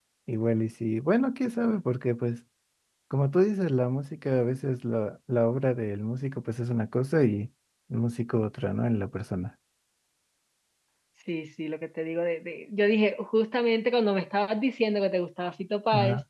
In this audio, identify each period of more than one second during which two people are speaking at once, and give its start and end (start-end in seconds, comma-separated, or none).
none